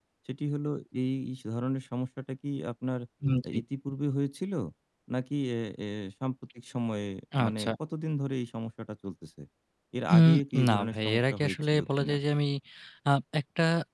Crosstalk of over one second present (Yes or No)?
Yes